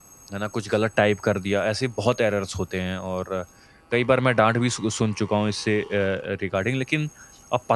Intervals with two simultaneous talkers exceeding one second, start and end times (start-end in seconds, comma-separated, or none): none